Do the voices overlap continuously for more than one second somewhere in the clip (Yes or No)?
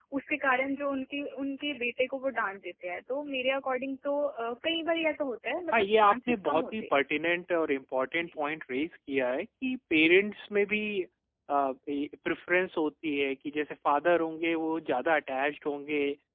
Yes